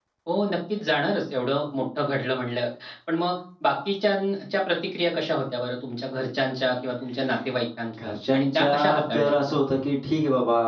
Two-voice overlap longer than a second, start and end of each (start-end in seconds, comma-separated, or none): 8.0-9.6